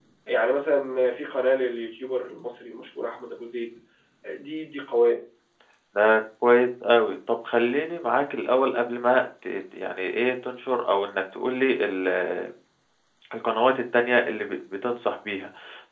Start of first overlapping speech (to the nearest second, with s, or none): none